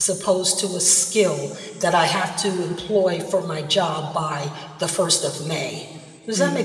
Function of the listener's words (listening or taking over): taking over